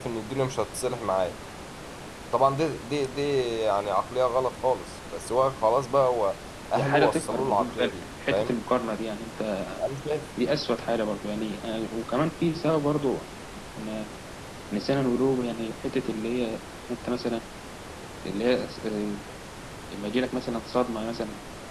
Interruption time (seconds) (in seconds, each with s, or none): 6.7 s